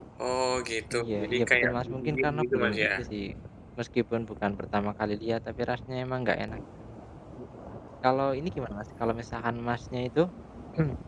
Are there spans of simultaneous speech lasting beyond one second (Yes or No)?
Yes